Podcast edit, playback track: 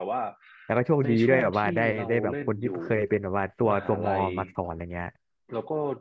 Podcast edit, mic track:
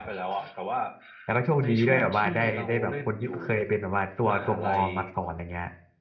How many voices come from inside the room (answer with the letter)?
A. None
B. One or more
A